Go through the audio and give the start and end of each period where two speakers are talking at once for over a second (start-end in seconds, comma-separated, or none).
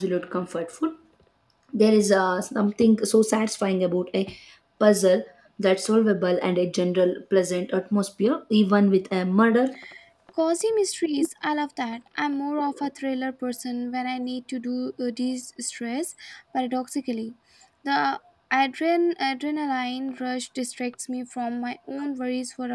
none